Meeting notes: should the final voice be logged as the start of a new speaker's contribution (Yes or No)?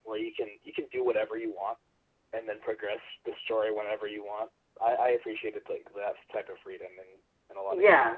Yes